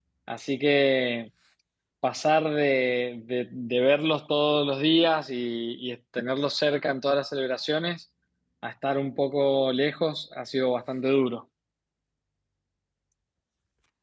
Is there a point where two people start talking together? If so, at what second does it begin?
none

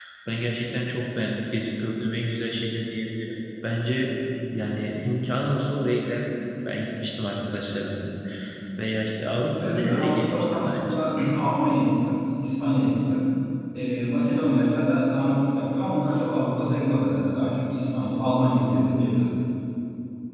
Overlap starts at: 9.6 s

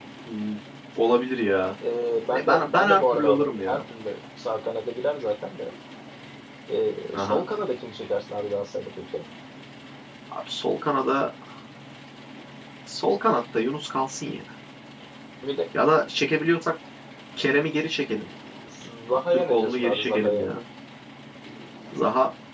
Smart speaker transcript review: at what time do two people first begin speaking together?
2.4 s

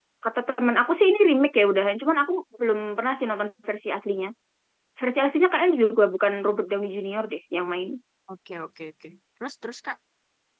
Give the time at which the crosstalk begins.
none

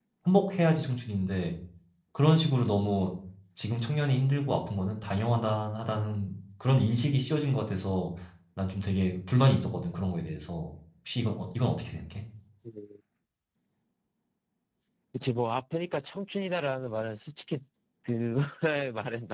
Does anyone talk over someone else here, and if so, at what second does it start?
none

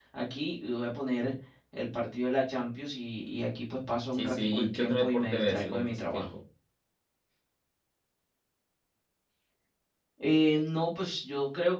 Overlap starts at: 4.1 s

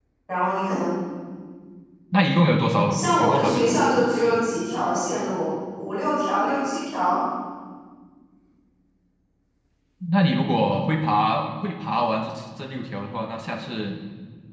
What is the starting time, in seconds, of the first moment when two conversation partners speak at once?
2.9 s

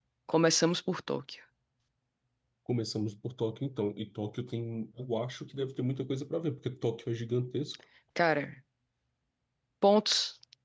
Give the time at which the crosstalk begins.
none

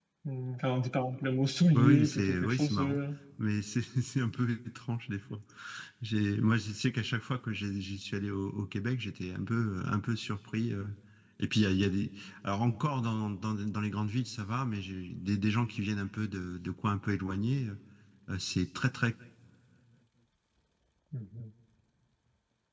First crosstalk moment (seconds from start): 1.7 s

